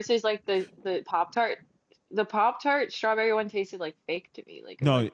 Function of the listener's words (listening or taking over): taking over